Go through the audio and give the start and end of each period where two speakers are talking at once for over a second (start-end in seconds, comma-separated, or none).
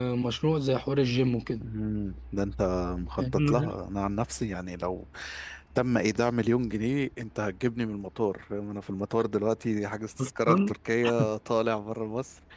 none